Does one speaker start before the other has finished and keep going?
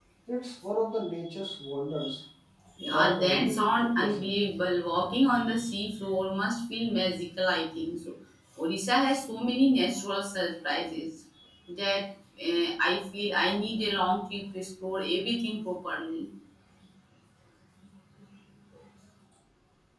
Yes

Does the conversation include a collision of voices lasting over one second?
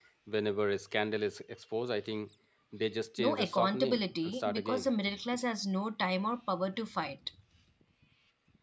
Yes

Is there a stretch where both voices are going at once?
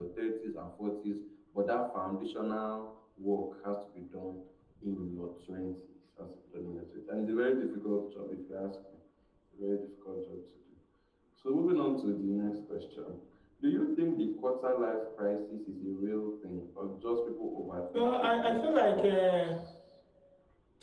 Yes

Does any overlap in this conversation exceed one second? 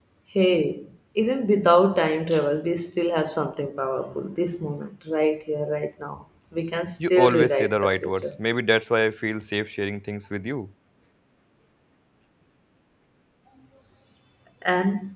Yes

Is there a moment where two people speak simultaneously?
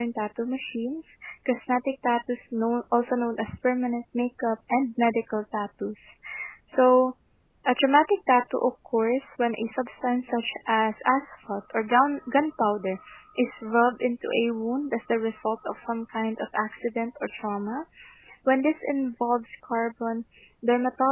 No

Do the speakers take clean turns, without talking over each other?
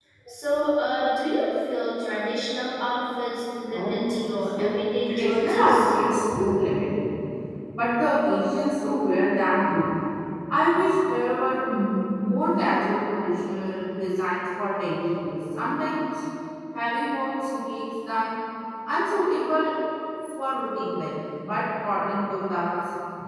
No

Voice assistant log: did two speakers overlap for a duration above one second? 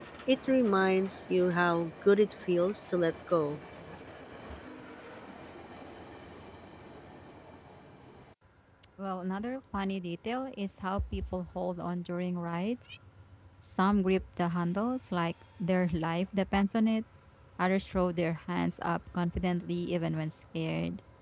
No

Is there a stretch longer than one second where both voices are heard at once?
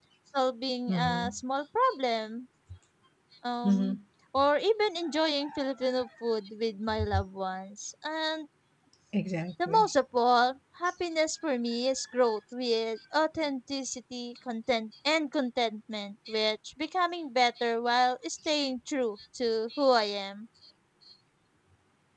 No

